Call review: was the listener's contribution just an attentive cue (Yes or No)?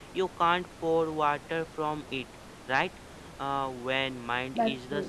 Yes